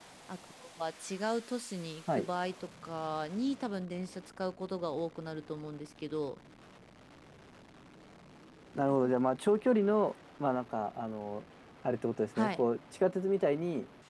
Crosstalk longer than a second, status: none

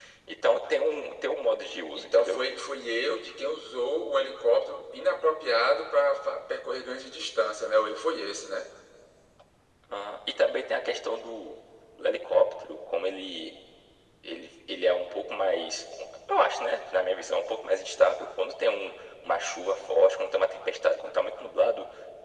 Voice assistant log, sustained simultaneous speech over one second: none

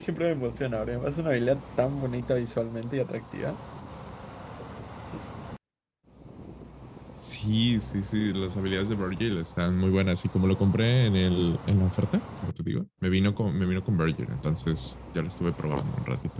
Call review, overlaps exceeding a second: none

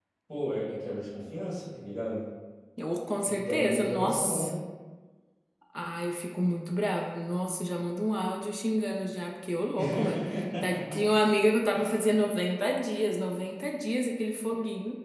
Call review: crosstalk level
present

